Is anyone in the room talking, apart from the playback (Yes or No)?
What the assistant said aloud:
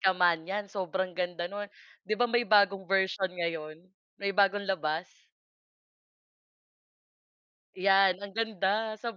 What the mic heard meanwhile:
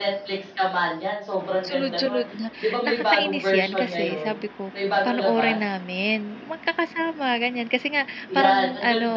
Yes